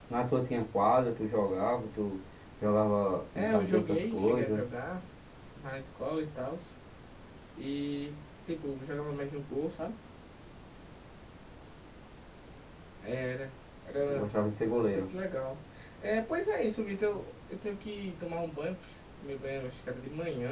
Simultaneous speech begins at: 3 s

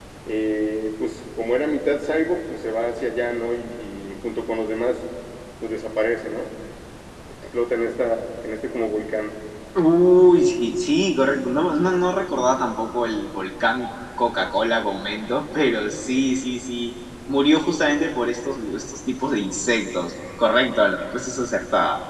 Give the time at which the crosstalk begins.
none

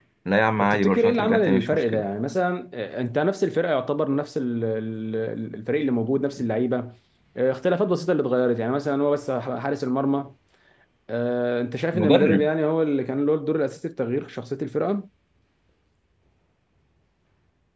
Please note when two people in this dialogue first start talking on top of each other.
1 s

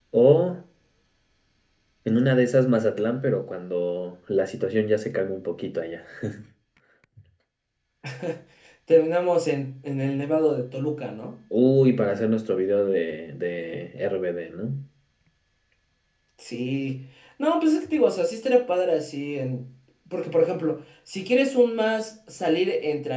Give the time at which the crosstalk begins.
none

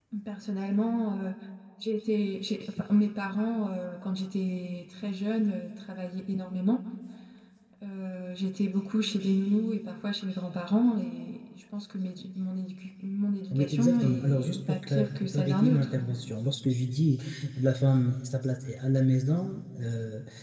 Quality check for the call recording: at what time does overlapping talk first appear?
14 s

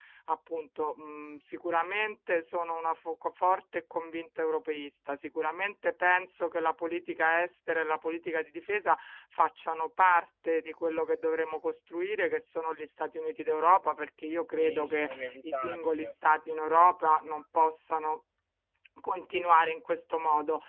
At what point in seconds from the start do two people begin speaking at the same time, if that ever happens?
15 s

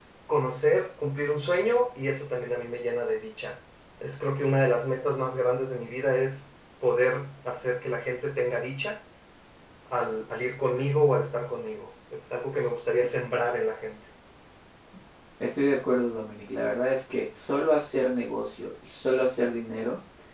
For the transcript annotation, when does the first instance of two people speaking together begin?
none

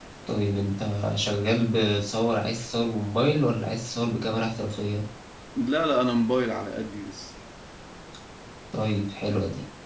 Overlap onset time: none

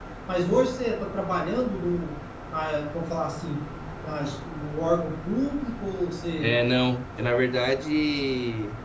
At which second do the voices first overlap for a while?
none

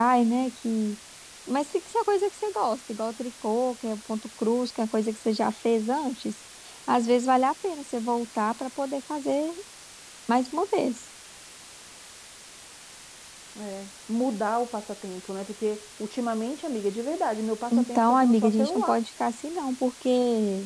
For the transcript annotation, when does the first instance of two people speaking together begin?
18 s

